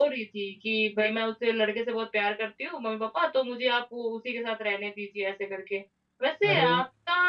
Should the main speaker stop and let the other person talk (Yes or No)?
No